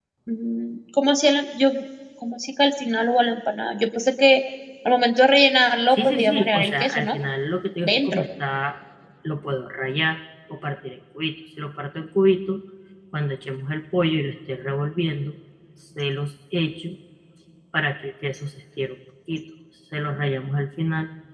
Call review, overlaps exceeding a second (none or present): present